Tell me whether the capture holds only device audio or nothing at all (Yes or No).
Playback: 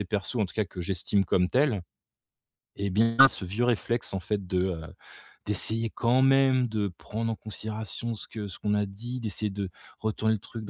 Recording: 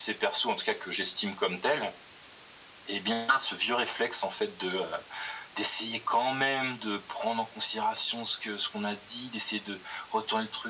Yes